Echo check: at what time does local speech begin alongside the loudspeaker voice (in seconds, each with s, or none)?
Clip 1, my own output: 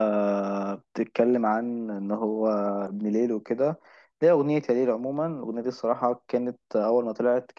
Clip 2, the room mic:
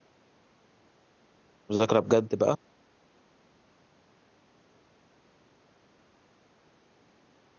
1.7 s